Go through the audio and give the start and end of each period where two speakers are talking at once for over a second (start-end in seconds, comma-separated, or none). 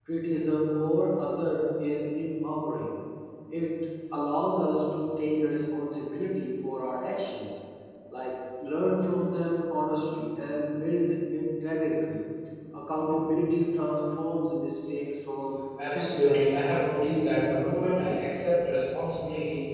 15.8-18.2